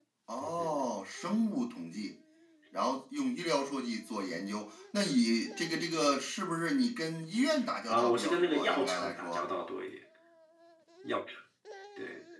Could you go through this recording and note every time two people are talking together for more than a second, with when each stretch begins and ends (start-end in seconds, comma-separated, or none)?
7.9-9.5